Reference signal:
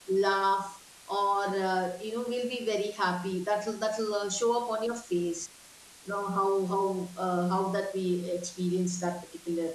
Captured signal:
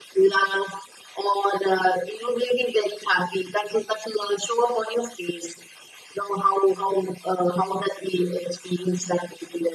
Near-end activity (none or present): none